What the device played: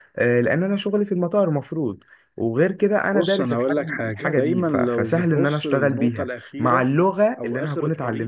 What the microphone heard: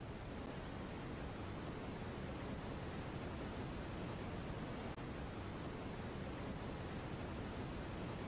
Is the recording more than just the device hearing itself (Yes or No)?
No